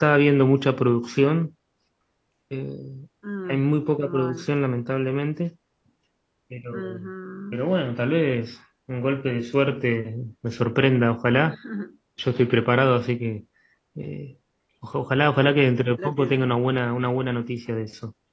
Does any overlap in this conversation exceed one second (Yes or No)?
No